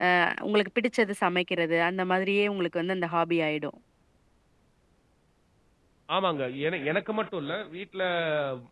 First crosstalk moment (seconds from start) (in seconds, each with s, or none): none